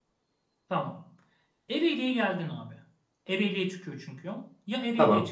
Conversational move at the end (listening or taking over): listening